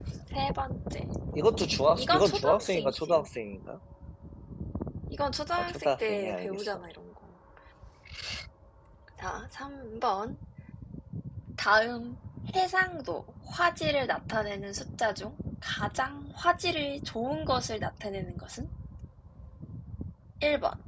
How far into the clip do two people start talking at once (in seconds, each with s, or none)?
1.9 s